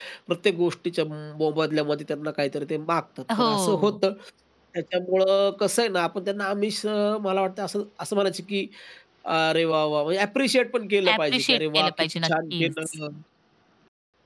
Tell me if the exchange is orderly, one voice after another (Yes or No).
No